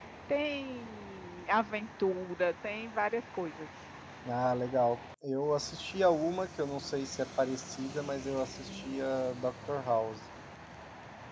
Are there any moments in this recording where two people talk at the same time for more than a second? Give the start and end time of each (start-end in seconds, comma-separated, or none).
none